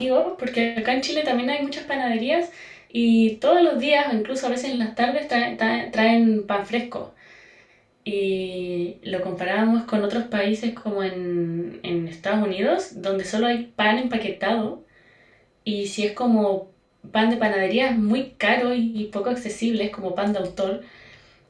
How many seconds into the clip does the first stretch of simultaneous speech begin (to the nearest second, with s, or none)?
none